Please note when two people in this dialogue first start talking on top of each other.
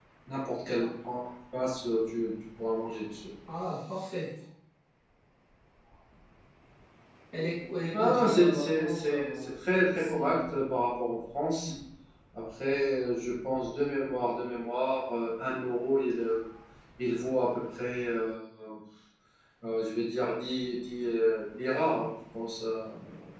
8 s

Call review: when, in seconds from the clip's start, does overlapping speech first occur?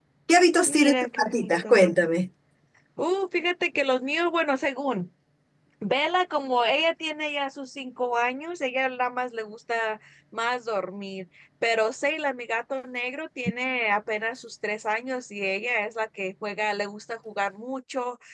1 s

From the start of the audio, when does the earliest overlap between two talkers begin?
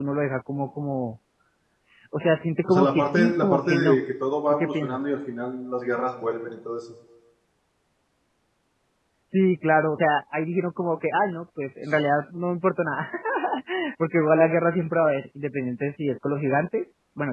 3 s

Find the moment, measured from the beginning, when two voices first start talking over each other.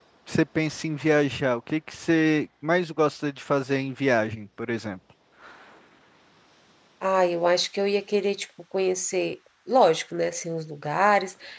none

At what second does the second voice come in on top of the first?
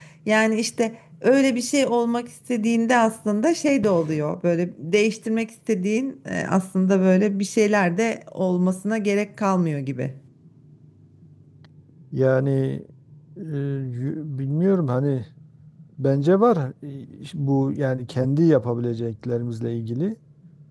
none

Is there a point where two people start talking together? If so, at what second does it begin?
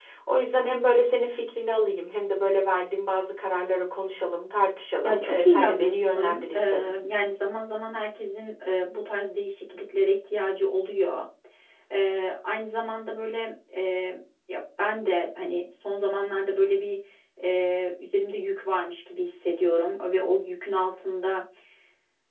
5 s

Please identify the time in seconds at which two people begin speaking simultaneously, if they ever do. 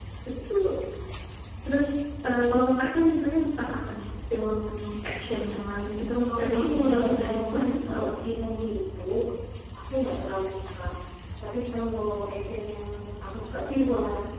6 s

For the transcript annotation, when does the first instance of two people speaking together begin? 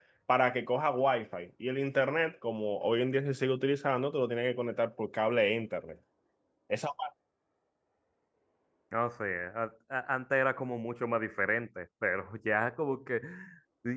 none

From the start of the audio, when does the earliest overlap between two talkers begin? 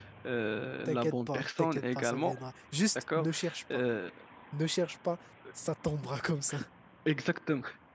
1 s

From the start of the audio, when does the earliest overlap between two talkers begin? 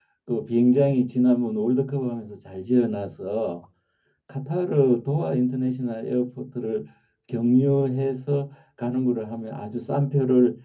none

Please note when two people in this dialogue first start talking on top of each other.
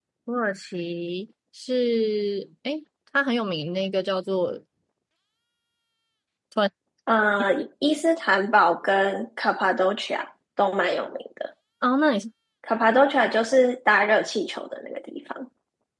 none

